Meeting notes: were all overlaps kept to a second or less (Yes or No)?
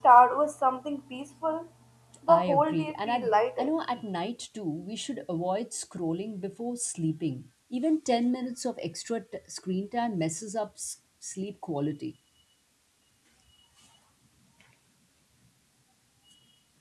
No